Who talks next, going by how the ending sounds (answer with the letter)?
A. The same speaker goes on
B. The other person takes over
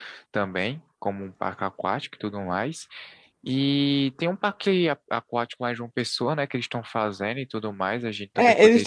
B